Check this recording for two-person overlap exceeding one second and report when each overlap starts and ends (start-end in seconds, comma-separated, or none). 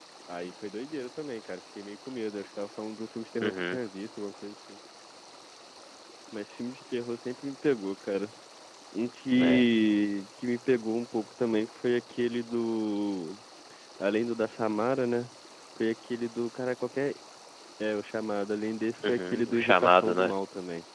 19.0-20.3